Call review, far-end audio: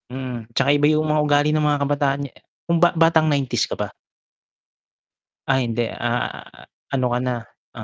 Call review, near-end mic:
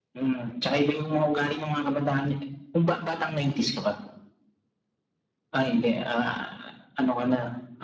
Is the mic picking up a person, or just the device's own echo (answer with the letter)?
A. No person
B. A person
A